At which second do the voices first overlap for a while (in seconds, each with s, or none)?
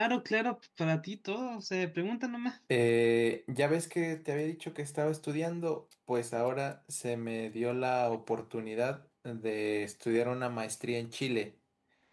none